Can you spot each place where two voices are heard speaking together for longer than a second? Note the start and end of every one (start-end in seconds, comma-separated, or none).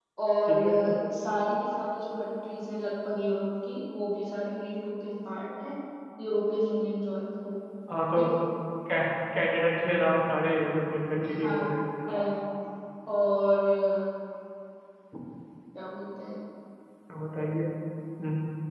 none